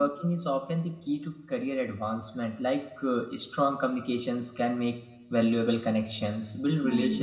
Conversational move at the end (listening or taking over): listening